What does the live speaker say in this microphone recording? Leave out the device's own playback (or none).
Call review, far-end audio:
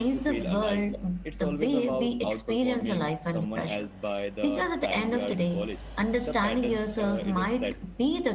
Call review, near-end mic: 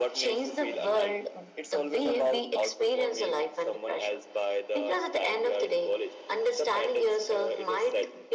none